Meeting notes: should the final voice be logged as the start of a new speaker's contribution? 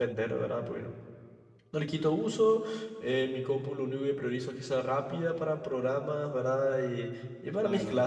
No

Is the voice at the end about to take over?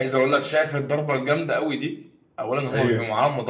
No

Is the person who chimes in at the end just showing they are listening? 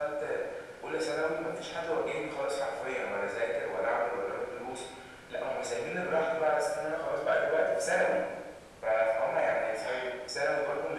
Yes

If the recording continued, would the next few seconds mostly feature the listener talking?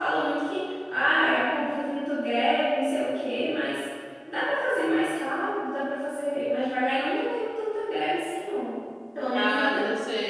Yes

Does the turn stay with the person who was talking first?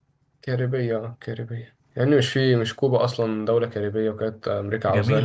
No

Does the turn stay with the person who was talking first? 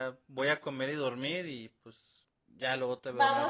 No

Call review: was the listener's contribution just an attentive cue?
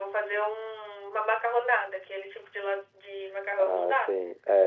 No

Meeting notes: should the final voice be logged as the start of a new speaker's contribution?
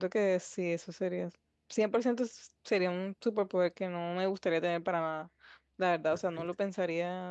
No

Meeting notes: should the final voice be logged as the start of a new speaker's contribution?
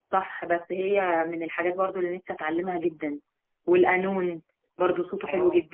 Yes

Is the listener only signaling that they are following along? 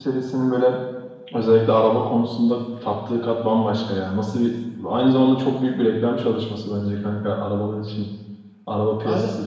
No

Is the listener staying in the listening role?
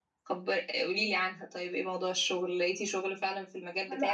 No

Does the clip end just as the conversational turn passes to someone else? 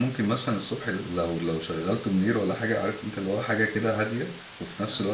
No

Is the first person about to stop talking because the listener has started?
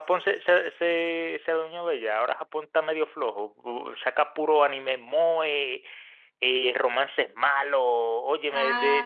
No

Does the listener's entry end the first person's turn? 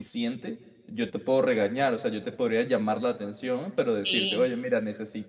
No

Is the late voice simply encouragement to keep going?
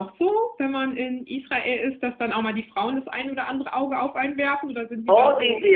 No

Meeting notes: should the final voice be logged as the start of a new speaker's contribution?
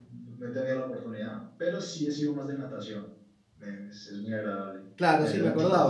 Yes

